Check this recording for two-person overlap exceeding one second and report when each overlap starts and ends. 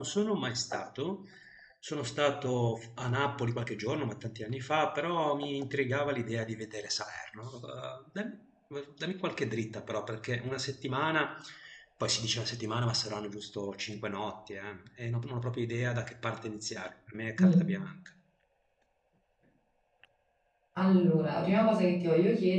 none

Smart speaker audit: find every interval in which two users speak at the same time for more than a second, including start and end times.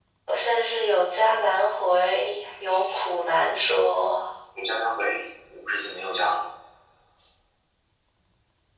none

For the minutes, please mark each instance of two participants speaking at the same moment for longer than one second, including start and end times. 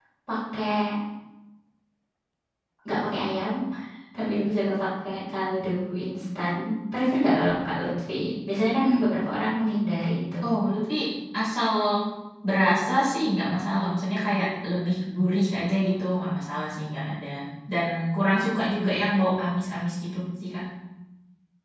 none

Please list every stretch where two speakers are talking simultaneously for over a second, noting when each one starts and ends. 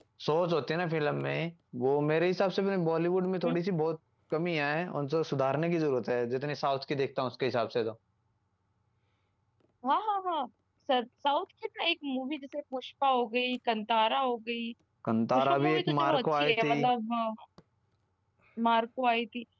15.3-16.7

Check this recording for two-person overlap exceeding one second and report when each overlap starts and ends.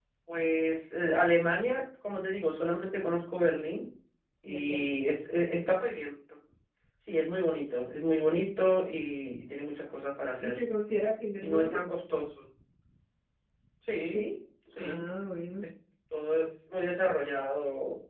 none

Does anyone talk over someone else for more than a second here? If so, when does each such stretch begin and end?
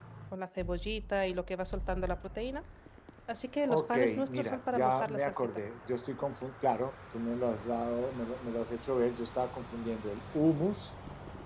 3.7-5.5

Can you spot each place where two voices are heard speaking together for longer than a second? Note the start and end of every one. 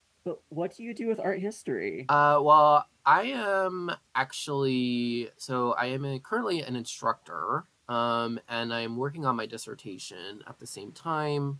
none

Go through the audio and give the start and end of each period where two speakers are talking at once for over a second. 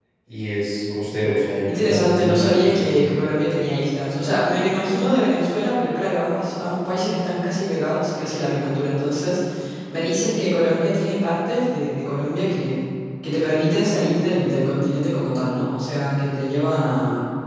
1.7-2.9

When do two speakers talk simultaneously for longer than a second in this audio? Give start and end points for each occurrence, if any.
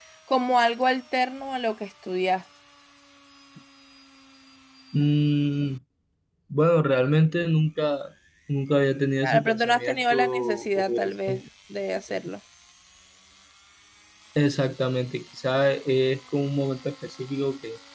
9.2-10.8

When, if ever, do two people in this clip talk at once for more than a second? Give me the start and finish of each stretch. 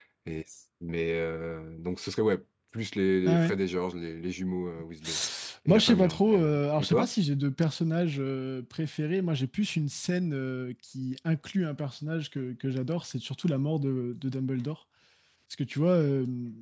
5.7-7.1

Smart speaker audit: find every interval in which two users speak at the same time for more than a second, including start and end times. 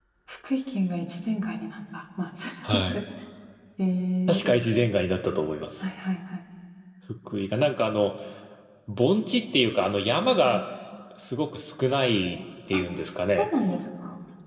none

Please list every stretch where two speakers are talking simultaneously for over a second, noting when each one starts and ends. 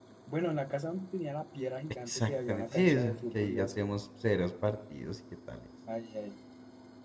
2.1-3.8

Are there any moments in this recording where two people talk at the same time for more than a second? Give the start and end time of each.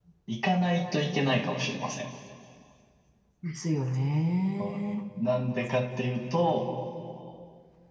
none

